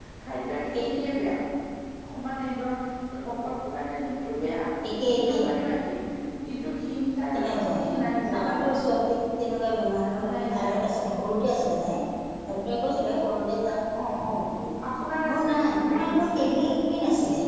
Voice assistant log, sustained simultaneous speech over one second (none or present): present